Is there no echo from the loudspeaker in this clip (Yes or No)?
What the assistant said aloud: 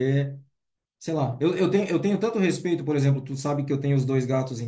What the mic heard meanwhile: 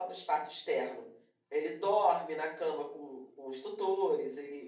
Yes